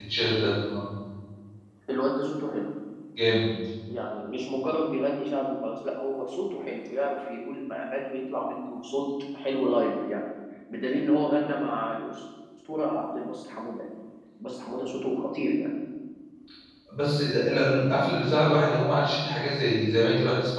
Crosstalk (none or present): none